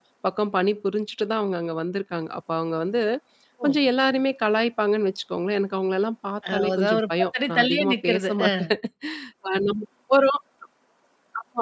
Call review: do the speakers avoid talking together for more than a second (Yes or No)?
No